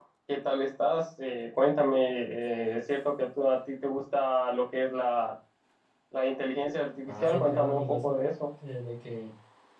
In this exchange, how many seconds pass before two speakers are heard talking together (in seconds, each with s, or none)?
7.1 s